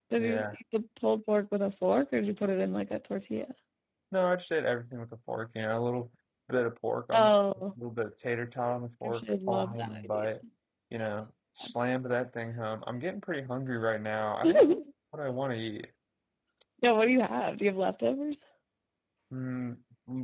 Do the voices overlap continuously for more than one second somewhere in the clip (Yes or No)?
Yes